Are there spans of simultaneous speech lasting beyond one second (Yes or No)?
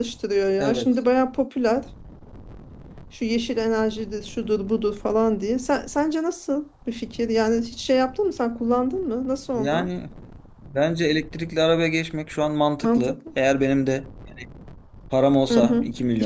No